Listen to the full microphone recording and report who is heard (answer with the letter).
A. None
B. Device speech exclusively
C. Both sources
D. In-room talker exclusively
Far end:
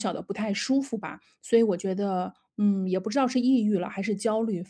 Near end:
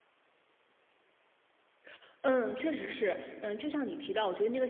D